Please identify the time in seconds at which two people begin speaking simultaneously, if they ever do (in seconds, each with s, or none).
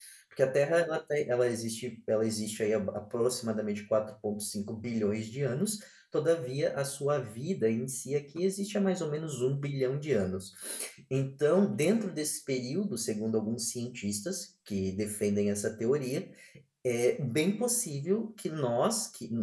none